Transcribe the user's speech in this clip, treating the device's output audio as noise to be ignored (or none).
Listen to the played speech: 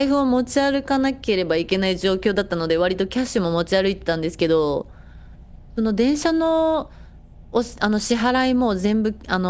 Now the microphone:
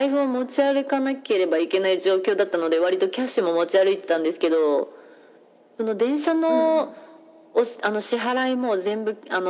うんうん。